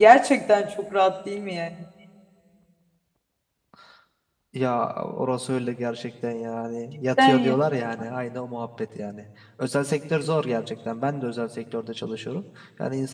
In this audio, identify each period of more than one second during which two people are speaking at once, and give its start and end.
none

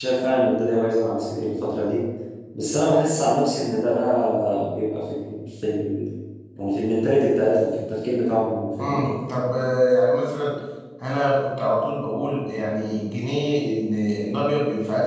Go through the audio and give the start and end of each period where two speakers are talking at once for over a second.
none

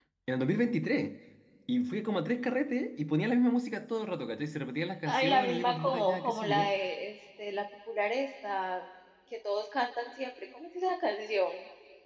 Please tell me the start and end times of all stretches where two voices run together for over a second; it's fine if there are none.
5.0-6.7

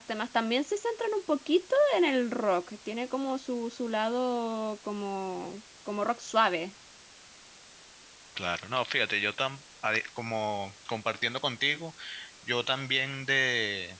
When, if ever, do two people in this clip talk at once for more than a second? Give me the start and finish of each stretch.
none

